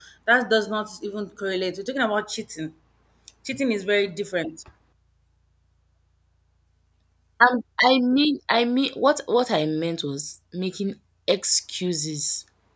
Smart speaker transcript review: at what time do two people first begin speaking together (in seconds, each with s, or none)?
none